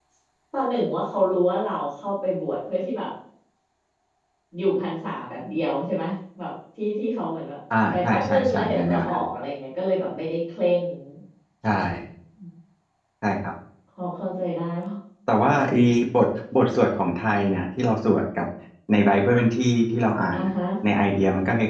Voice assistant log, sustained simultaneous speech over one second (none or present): present